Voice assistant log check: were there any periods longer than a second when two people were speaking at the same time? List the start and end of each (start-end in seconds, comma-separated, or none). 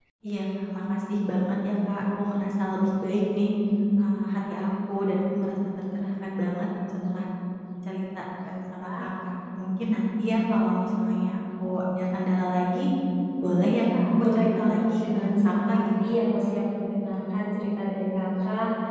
14.4-15.9